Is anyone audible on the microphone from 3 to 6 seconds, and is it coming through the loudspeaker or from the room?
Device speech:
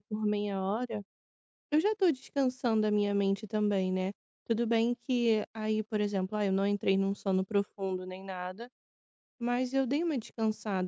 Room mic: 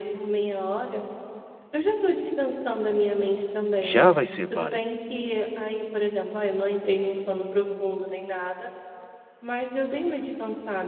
both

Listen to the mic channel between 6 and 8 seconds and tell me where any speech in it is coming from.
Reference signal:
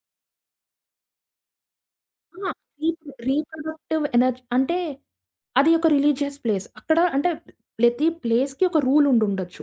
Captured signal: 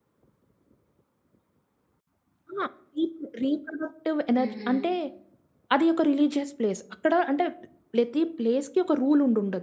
echo only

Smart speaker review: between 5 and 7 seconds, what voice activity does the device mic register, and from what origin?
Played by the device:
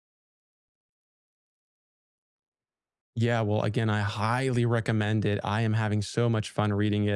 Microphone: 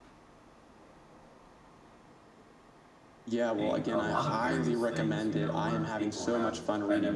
both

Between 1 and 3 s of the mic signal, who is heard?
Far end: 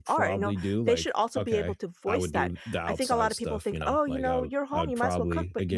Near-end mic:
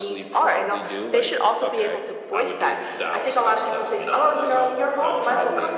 echo only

